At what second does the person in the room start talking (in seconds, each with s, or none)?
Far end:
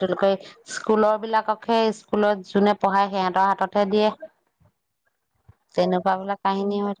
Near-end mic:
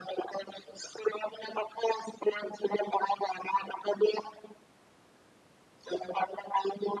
none